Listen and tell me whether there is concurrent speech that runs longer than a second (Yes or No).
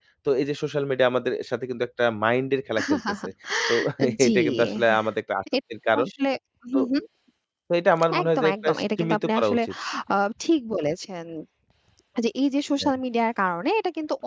Yes